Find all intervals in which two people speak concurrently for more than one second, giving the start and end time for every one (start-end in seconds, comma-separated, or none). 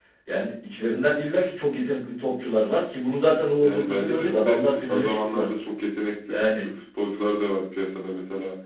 3.6-5.5